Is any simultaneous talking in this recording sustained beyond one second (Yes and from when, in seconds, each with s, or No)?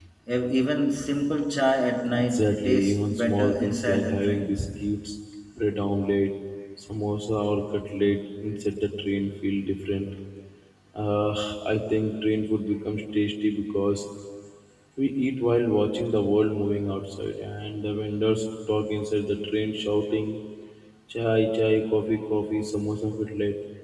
Yes, from 2.1 s